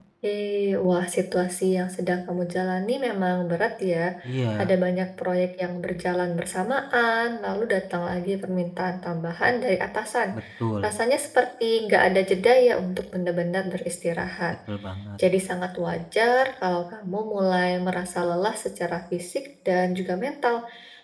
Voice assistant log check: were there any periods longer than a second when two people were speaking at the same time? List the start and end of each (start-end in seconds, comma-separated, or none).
none